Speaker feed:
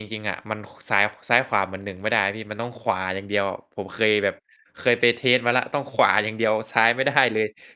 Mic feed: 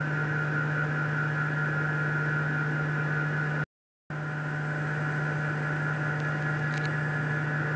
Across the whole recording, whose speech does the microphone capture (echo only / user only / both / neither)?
neither